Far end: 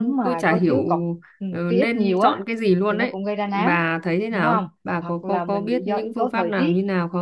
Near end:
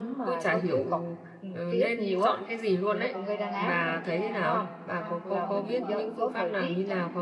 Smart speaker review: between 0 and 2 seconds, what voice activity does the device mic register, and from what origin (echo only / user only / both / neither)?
echo only